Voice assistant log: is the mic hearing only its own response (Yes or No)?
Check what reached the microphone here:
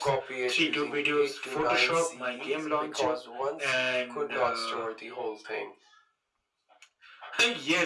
Yes